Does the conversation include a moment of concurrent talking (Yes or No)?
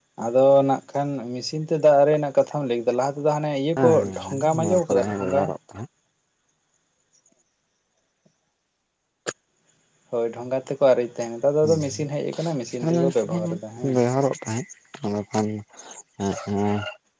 Yes